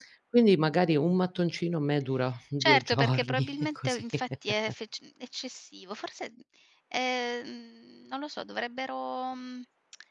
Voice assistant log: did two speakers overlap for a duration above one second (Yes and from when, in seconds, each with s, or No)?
Yes, from 2.6 s